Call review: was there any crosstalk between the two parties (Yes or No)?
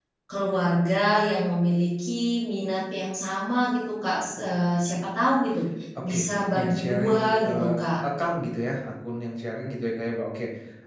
Yes